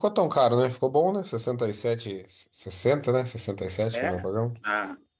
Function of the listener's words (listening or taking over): taking over